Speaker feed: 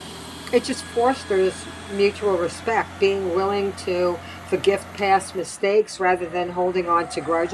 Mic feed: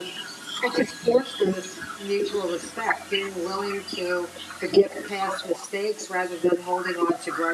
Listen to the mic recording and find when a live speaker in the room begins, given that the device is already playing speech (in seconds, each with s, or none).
none